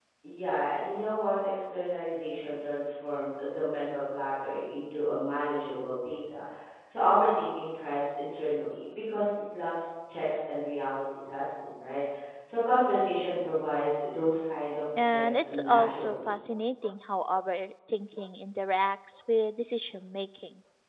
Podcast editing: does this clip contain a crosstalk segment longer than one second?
Yes, from 15.0 s

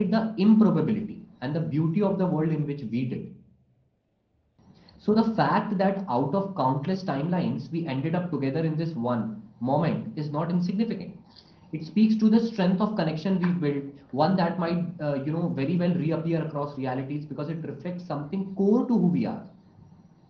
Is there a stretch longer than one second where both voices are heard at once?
No

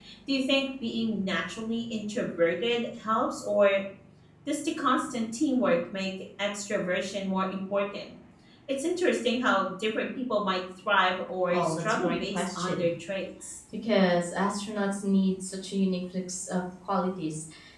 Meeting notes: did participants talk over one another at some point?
Yes, from 11.5 s

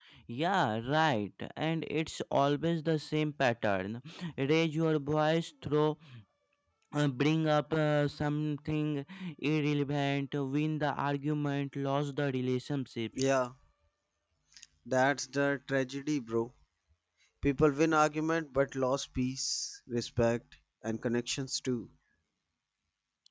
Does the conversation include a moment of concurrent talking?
No

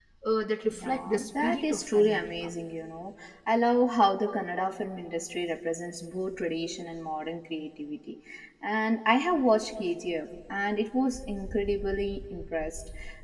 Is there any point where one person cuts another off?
Yes, from 0.8 s

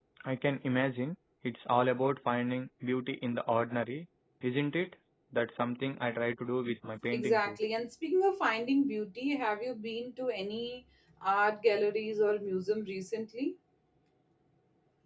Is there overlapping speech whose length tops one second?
No

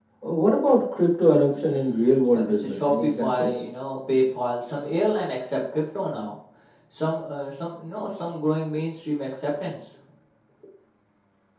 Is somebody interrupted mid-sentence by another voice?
Yes, from 1.5 s

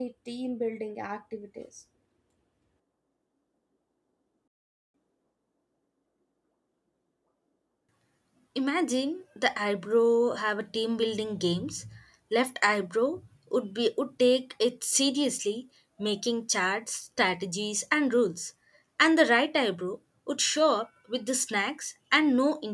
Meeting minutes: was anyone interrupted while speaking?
No

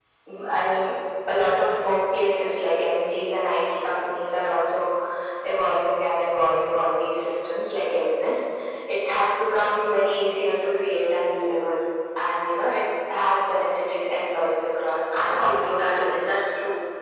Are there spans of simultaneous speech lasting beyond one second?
Yes, from 15.1 s

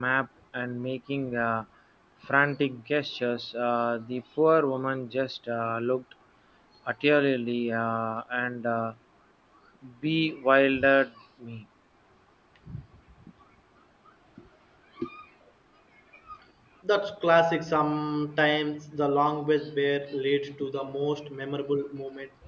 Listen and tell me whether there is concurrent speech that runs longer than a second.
No

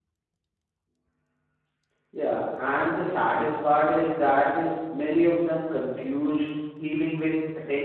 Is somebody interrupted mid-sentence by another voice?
No

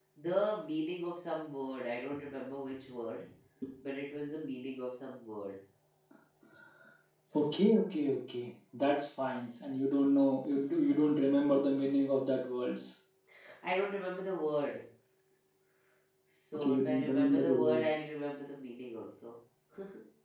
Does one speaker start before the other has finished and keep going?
Yes, from 16.5 s

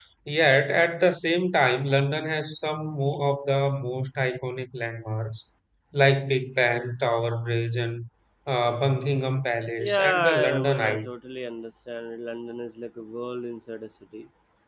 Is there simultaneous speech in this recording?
Yes, from 9.8 s

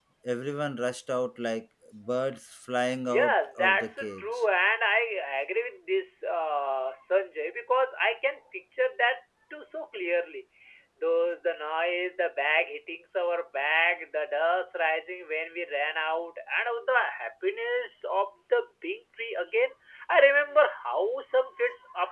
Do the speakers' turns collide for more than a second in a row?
Yes, from 3.0 s

